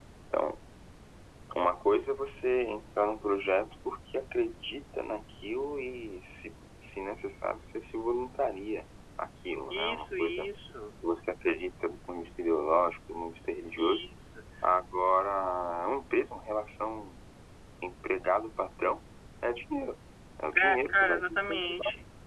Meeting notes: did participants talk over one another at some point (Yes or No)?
Yes